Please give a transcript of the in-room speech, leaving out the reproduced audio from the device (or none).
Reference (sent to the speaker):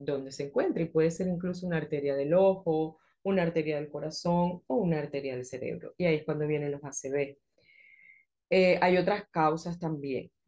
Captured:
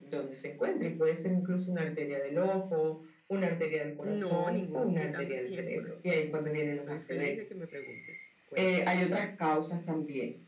no, ningún quitando tiempo, no te preocupes. Estoy feliz de que me preguntes. Cuéntame.